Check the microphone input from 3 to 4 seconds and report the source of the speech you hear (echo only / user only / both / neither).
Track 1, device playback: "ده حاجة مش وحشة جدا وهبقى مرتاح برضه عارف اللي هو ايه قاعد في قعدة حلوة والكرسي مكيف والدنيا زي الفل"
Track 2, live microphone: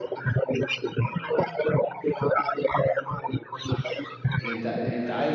echo only